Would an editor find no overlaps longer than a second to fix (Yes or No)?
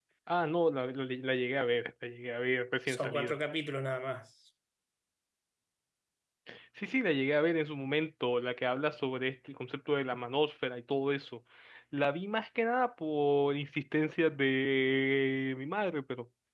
Yes